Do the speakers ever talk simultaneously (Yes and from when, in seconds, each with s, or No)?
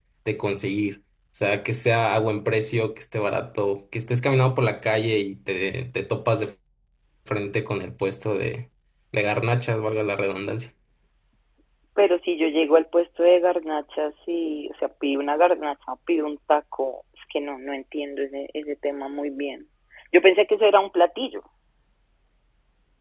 No